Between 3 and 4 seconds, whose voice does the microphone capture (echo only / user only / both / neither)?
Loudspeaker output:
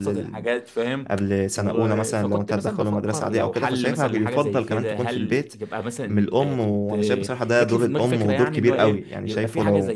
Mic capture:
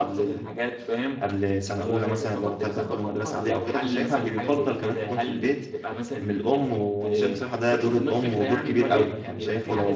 echo only